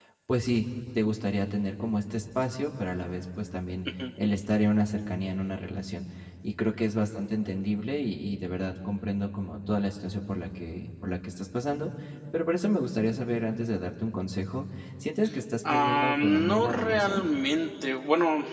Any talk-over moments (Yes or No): Yes